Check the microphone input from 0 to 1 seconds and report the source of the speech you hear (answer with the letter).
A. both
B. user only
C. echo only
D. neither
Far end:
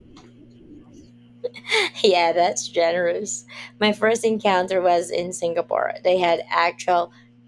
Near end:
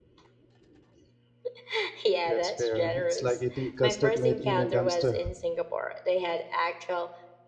D